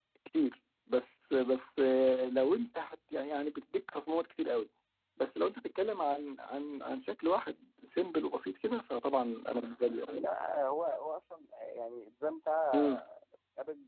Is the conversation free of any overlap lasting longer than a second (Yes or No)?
Yes